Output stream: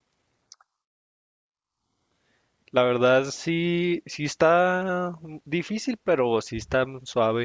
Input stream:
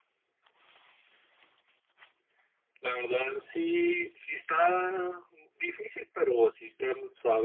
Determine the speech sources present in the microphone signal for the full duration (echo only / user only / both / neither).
echo only